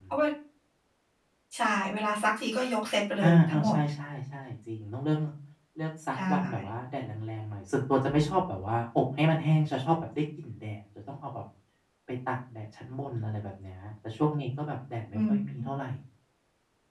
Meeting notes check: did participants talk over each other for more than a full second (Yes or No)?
No